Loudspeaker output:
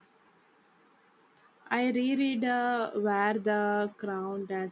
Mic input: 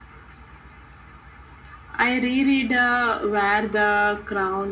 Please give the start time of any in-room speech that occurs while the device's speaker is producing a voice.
none

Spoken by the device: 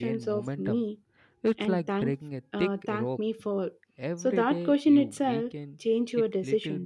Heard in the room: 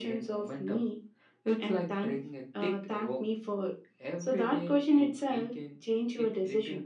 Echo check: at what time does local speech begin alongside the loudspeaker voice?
none

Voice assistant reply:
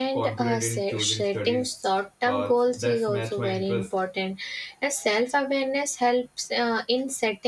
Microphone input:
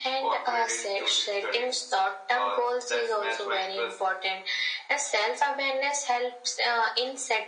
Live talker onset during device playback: none

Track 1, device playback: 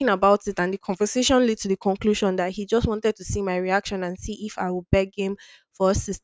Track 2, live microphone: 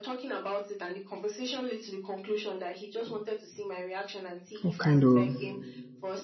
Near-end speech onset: 5 s

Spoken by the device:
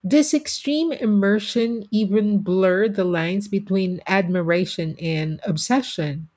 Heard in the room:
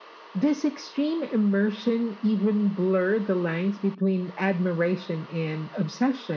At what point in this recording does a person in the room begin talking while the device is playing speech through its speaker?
none

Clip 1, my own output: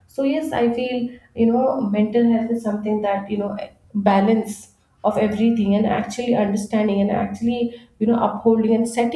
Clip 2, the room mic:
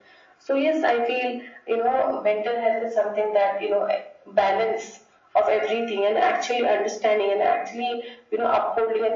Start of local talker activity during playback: none

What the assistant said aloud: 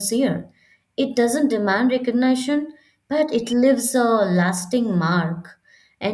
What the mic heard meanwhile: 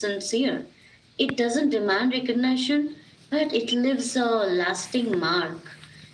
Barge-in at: none

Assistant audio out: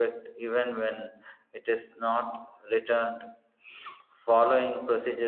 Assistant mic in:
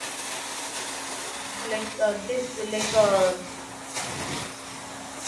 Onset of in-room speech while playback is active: 2 s

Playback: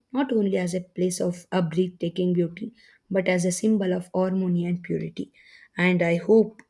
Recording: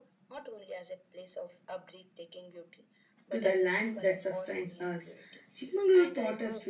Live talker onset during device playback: 3 s

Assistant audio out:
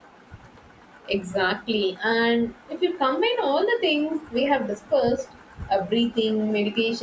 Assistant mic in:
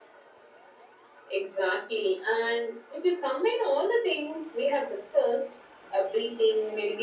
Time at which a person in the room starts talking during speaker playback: none

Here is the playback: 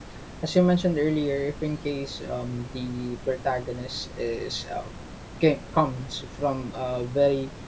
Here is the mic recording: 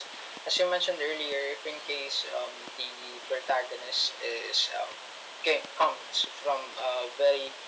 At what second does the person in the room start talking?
none

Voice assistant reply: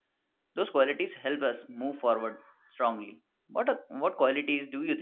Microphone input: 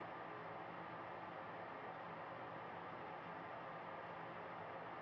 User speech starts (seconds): none

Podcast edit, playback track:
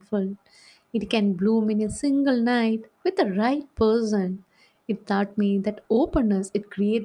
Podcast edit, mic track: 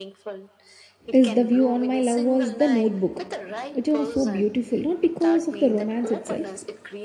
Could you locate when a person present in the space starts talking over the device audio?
1 s

